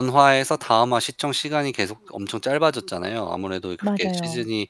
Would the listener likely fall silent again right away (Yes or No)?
Yes